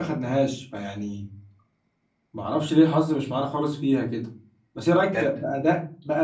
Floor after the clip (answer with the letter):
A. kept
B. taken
A